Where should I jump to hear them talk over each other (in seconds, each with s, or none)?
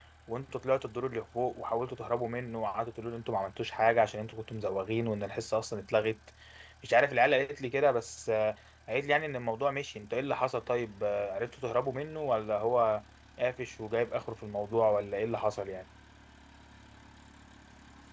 none